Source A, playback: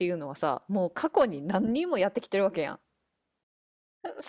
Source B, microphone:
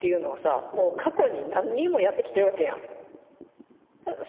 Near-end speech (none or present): none